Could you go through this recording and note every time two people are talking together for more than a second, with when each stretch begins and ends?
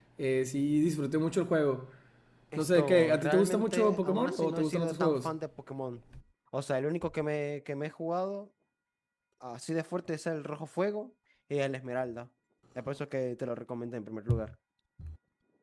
2.6-5.3

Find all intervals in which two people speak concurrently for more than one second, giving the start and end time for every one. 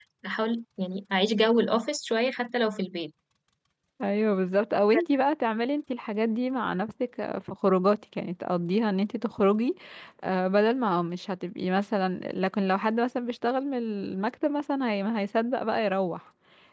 none

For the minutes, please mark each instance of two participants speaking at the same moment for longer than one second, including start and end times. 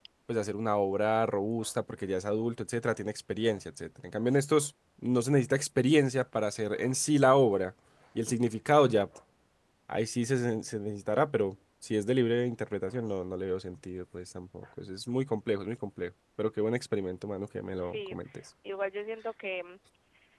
none

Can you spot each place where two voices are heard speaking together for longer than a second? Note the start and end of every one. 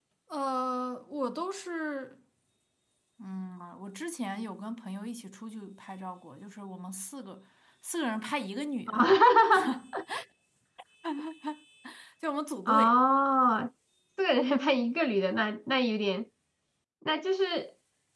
none

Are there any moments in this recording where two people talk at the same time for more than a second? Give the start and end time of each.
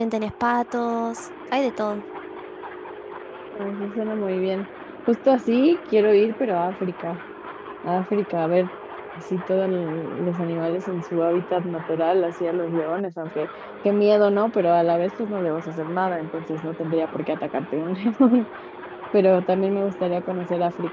none

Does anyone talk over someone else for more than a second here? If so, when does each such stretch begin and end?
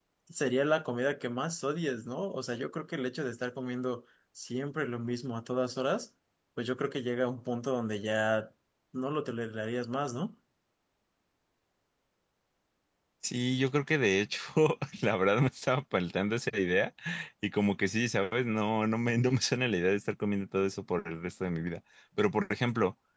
none

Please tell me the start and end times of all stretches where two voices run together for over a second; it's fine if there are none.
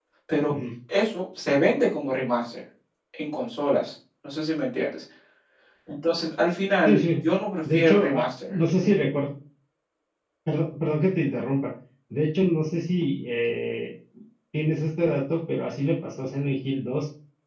7.7-9.0

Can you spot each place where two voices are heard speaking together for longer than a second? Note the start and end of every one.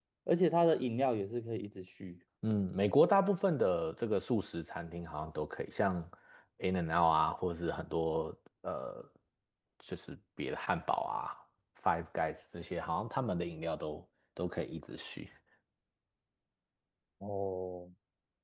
none

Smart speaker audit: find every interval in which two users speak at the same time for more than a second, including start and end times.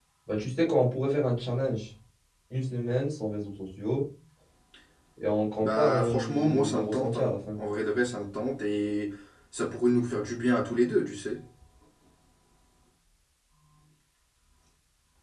5.6-7.6

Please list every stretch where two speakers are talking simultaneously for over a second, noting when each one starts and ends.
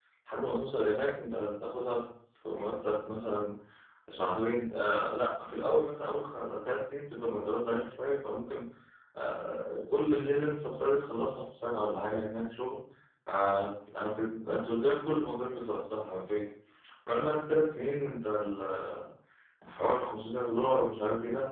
none

